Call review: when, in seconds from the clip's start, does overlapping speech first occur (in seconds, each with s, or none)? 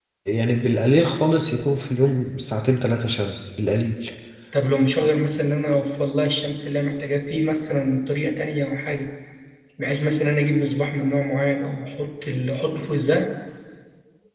none